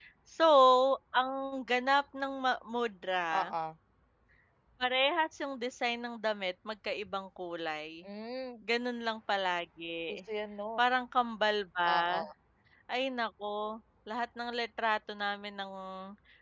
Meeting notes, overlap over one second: none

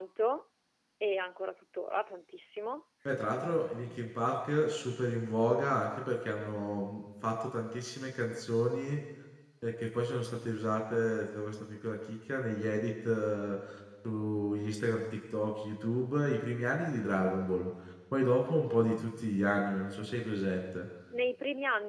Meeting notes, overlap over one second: none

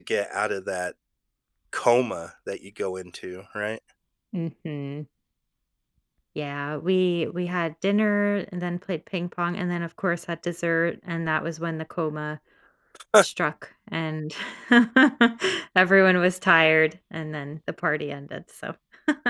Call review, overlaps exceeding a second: none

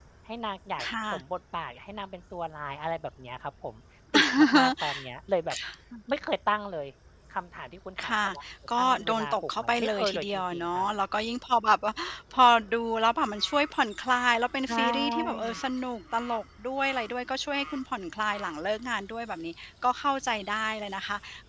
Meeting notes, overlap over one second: present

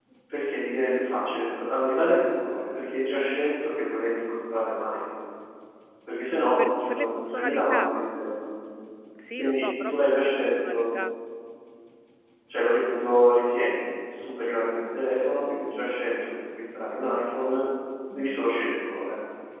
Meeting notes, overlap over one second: present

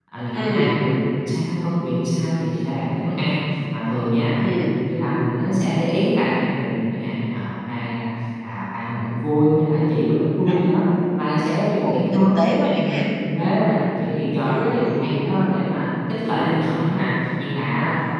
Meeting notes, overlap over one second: present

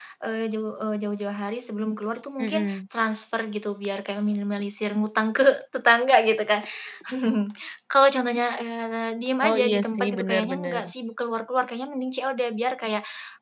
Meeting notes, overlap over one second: present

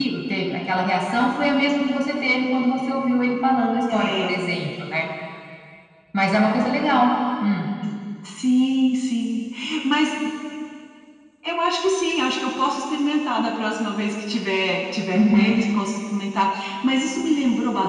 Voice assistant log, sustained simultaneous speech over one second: none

